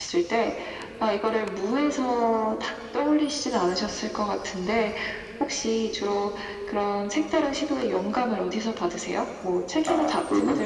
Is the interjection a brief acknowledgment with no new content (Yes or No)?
Yes